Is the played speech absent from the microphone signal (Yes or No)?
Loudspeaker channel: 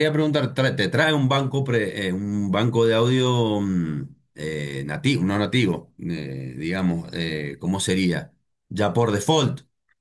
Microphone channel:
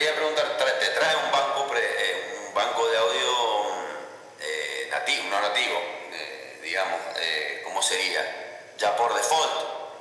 No